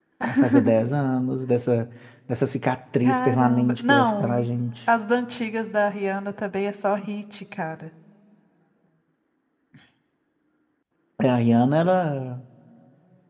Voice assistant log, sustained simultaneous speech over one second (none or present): present